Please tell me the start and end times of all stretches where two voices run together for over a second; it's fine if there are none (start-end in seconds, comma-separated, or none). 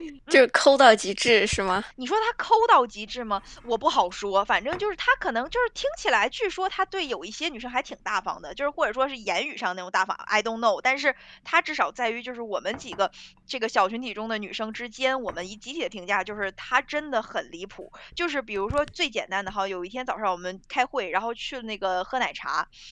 none